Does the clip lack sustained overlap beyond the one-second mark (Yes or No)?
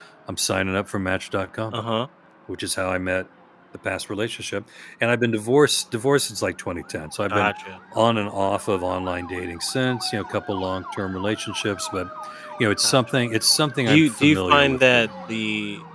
No